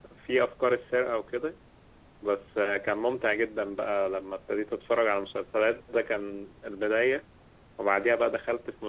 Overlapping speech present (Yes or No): No